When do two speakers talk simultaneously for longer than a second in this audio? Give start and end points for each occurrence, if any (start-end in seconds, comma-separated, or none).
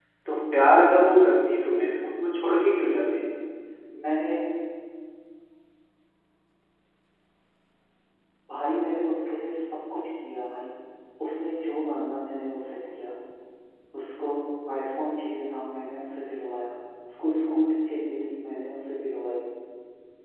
none